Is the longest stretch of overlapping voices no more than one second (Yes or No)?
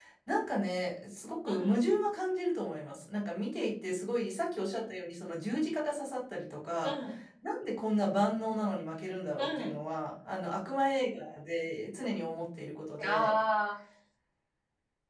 Yes